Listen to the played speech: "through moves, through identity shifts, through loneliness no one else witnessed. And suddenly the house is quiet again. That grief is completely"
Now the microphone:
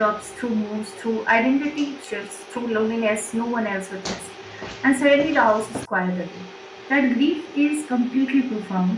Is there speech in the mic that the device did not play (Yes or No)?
No